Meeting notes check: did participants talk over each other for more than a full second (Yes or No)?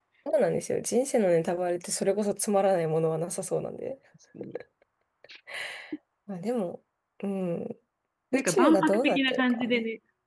Yes